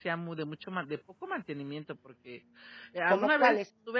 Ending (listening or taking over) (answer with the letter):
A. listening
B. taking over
A